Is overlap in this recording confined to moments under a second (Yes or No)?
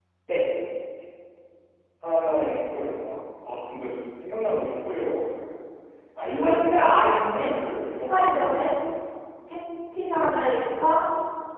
No